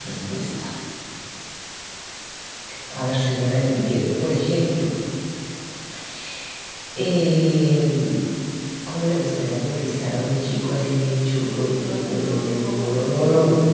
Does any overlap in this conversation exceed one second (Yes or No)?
Yes